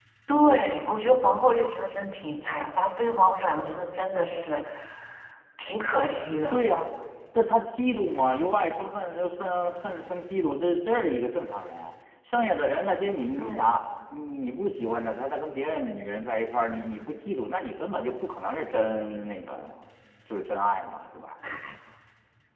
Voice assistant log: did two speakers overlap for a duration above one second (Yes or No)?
No